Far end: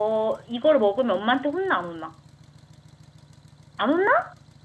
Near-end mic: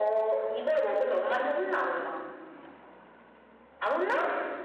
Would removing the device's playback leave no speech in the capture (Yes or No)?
Yes